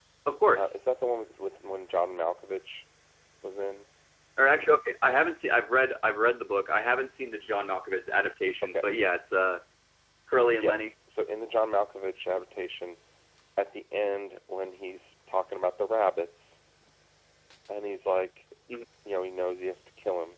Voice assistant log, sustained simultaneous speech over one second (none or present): none